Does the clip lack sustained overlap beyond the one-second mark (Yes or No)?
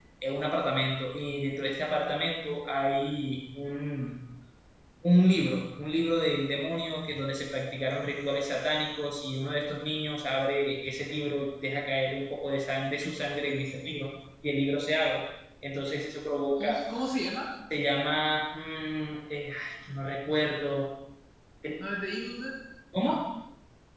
Yes